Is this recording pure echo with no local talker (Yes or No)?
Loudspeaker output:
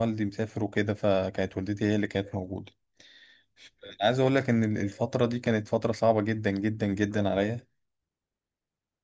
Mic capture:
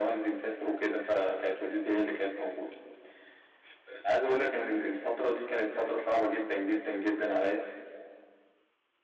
Yes